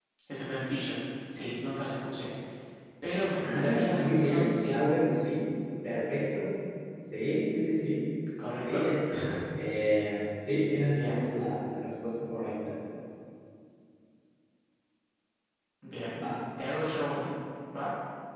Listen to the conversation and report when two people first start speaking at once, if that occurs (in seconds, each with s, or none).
3.4 s